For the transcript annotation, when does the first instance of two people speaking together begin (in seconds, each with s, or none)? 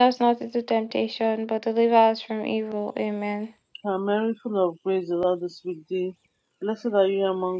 none